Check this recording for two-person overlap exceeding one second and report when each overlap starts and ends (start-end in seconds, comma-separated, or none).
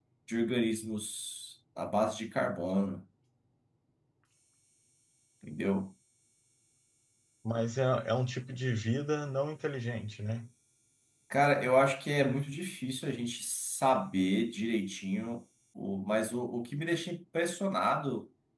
none